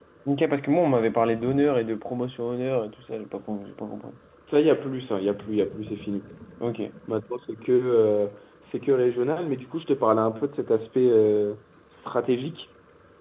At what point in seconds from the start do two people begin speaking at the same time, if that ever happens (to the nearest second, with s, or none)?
none